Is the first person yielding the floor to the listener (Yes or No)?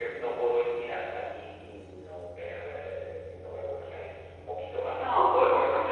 Yes